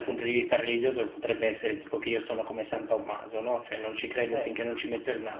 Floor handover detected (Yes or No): No